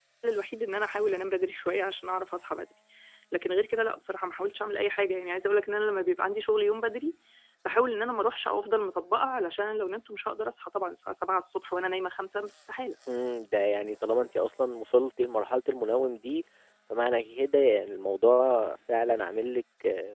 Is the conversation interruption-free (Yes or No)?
Yes